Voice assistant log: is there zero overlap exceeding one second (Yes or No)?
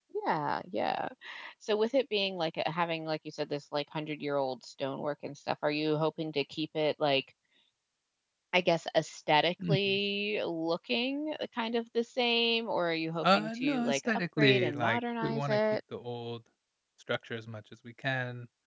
No